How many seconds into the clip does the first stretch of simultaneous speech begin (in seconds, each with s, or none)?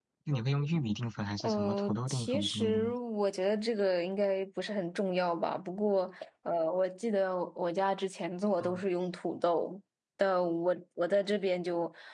1.4 s